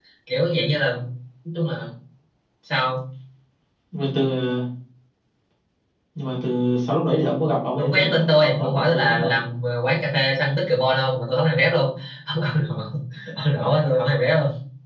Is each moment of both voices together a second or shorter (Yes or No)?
No